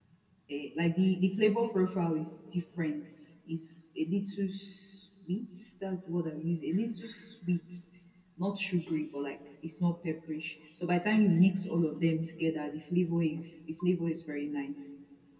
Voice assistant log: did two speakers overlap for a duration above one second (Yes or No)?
No